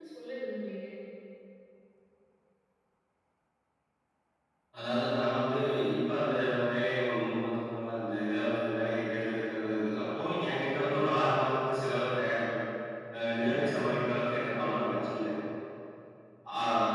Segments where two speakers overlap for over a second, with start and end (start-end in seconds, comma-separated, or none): none